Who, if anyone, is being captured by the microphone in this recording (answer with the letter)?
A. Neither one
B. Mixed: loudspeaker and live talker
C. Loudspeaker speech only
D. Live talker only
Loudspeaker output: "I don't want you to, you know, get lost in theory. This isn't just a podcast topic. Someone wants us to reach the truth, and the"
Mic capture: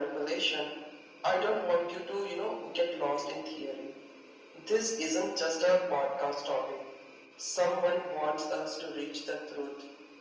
C